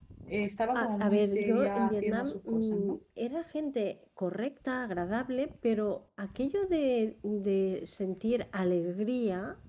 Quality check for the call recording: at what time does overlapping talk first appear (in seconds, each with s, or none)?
0.7 s